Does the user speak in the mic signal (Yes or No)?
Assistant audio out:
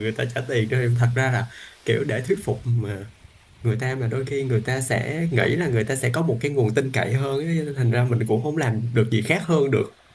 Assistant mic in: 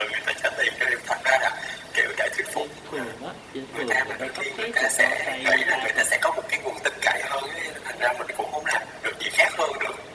Yes